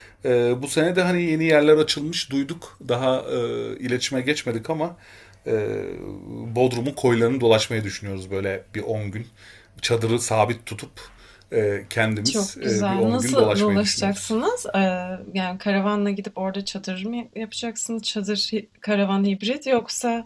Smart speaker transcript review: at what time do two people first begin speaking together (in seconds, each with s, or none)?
12.3 s